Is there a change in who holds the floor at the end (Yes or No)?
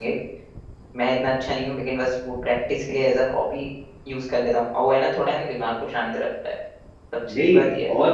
Yes